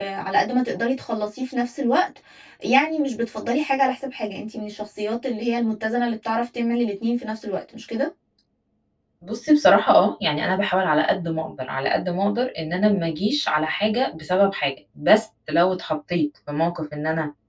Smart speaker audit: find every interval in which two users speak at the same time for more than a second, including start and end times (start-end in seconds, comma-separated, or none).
none